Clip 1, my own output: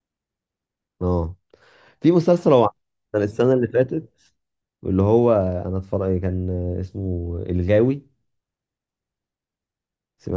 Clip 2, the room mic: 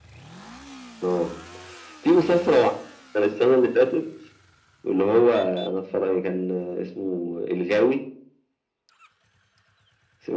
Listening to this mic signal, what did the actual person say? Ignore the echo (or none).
none